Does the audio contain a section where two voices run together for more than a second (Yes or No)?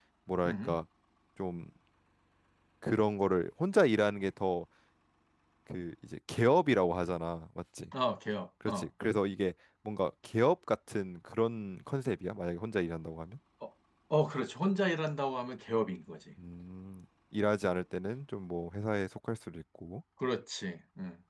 No